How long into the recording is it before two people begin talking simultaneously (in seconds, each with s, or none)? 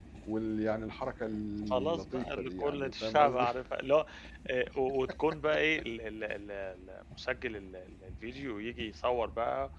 1.7 s